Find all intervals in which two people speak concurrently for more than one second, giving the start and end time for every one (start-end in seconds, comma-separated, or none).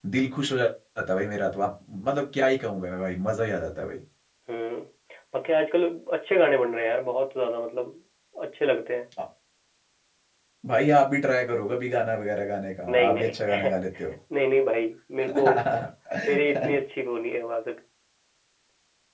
none